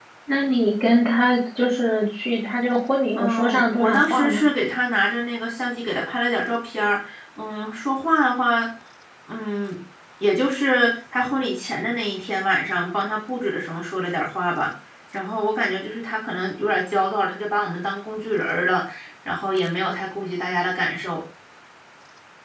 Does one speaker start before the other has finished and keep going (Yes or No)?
Yes